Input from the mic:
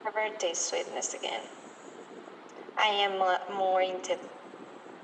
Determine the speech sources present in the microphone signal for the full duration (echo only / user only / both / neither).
echo only